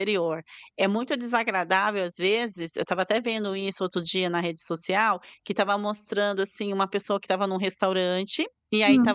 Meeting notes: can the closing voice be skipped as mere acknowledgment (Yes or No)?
Yes